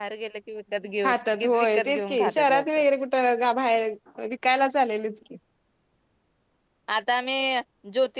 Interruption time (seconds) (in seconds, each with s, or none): 1.0 s